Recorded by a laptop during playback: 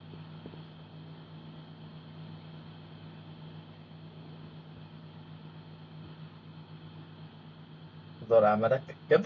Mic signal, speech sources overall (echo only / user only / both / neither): user only